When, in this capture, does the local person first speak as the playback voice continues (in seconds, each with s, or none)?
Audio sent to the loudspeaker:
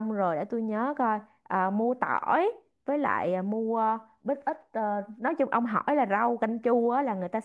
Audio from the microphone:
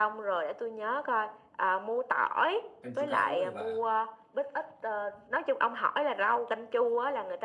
2.8 s